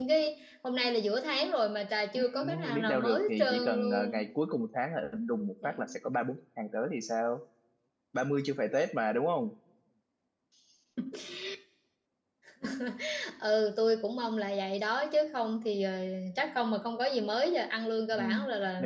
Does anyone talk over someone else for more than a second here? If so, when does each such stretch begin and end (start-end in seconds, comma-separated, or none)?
2.1-4.3